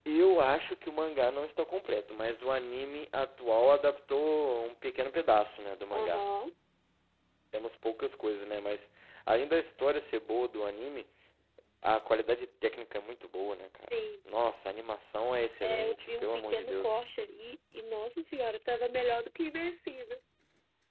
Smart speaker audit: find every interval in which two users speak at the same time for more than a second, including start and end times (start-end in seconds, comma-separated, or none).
15.6-16.9